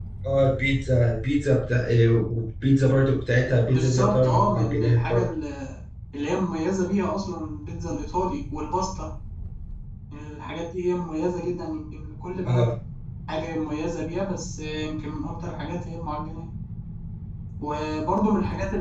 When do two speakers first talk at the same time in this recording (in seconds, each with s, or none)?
3.7 s